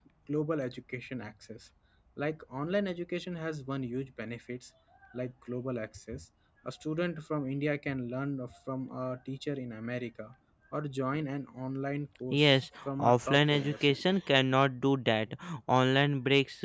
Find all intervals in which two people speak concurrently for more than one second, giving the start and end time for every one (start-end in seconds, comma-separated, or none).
12.3-14.0